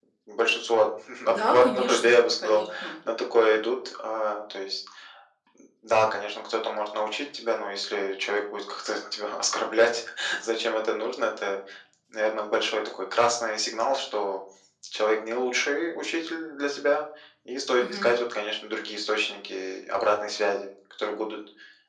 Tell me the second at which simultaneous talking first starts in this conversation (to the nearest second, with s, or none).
1 s